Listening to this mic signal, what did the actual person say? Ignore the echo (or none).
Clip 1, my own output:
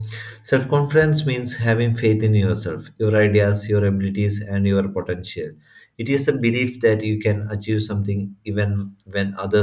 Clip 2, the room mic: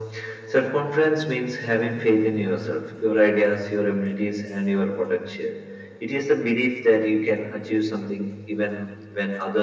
none